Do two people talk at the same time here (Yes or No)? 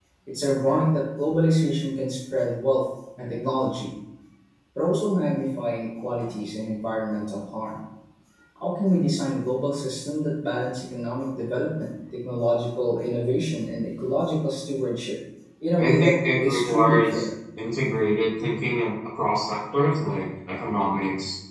Yes